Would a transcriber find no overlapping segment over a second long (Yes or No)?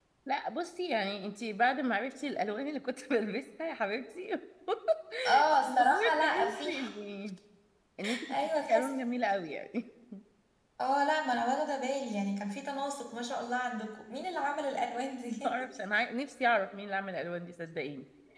No